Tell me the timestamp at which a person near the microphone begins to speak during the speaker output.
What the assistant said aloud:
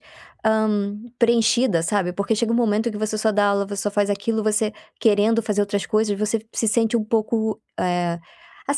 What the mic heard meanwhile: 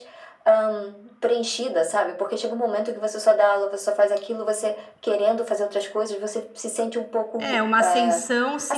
7 s

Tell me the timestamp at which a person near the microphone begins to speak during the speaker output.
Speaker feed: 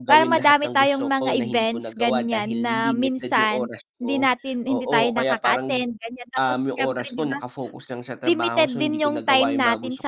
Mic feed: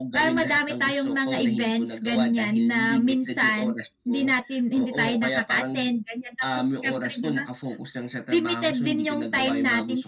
none

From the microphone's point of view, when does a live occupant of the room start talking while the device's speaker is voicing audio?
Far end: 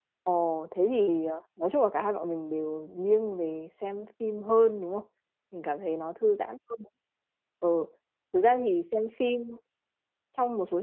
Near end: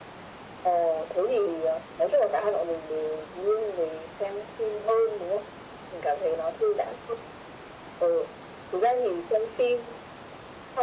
none

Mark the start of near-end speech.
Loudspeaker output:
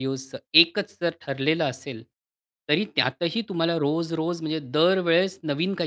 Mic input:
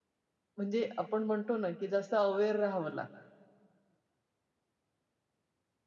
1 s

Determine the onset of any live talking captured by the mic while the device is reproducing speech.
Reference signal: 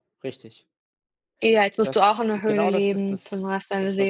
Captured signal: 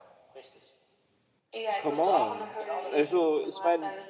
2 s

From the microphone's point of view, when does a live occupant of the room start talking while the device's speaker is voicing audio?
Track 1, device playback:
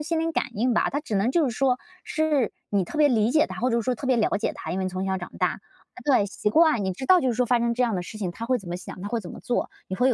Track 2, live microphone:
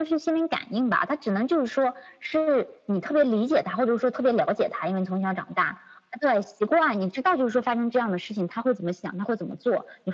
none

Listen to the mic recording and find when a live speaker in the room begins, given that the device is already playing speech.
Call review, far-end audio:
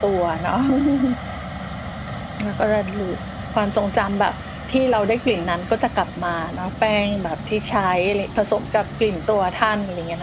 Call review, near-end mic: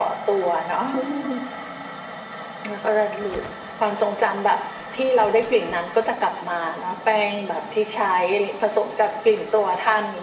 none

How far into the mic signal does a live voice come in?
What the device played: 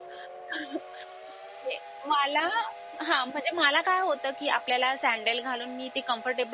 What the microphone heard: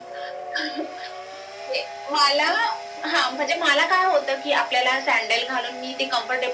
none

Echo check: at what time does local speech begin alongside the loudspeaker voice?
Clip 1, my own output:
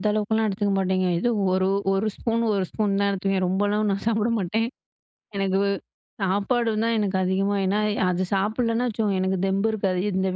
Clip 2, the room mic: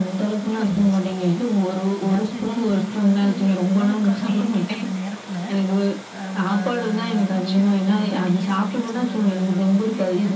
0 s

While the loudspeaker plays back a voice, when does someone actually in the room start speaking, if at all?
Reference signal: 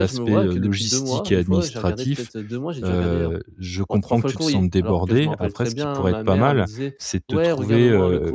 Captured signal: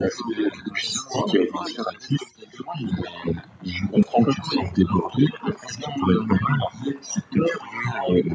none

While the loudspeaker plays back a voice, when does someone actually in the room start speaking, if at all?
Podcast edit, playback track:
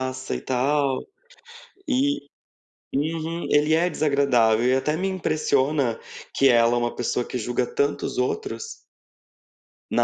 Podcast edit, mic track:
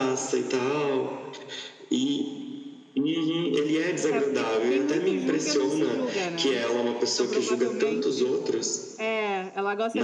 4 s

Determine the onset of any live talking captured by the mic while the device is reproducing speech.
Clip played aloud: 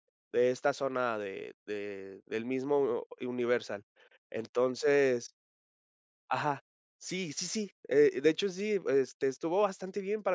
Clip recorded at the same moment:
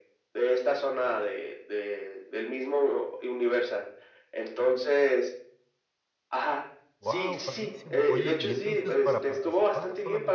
7 s

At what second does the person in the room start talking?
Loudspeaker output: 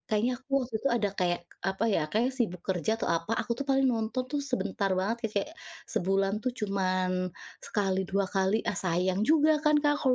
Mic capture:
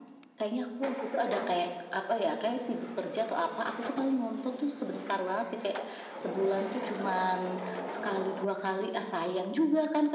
none

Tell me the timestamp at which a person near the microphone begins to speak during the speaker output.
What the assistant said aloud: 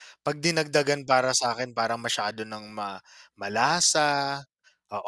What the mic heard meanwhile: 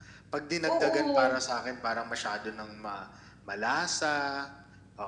1 s

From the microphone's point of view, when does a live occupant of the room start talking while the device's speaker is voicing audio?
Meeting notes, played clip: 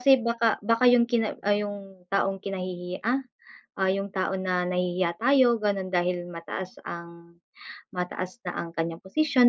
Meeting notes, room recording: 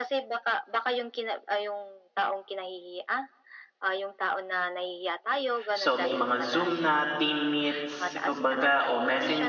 6 s

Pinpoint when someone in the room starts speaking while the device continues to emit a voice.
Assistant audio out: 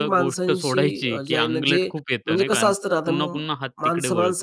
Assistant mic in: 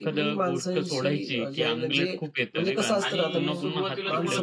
3 s

